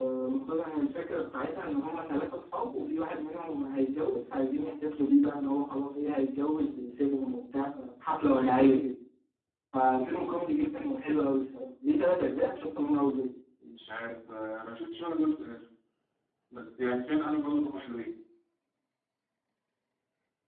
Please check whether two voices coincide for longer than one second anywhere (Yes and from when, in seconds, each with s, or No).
No